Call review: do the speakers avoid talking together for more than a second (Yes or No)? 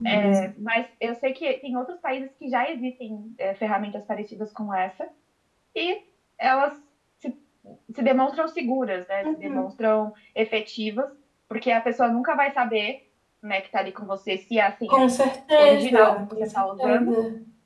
No